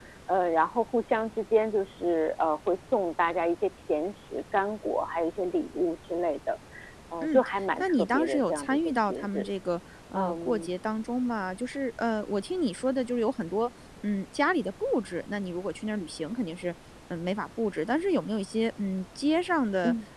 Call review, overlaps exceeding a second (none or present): present